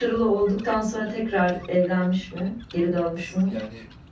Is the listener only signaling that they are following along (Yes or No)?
No